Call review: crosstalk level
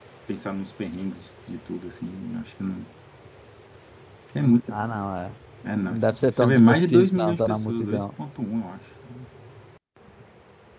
present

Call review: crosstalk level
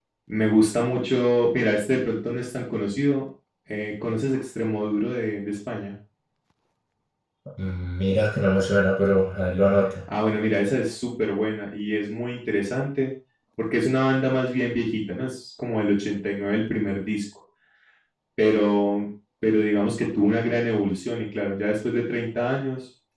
none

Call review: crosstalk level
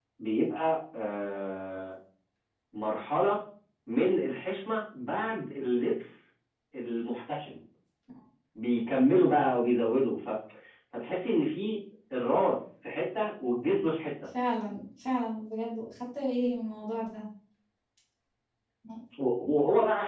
none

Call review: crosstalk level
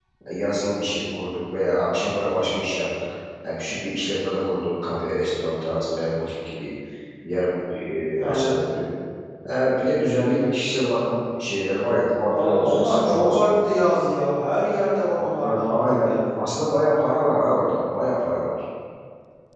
present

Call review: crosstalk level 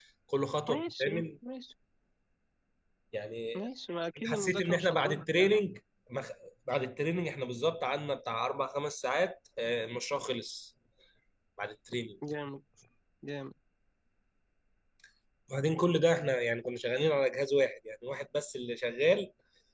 present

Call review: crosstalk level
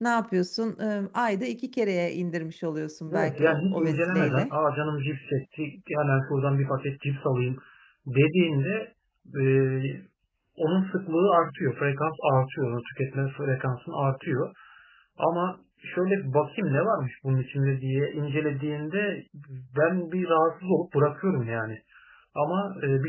present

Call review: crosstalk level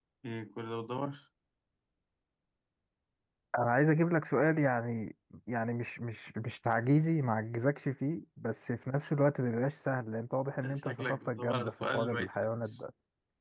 present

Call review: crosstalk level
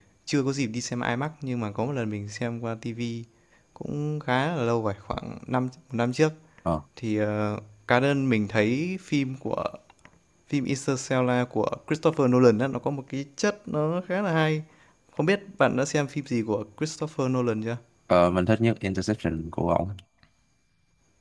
none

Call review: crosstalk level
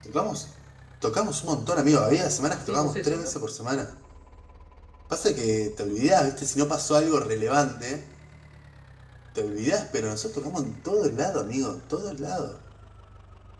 present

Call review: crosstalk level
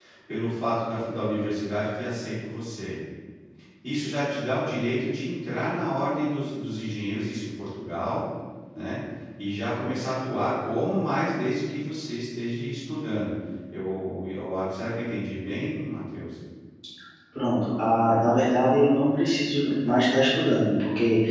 none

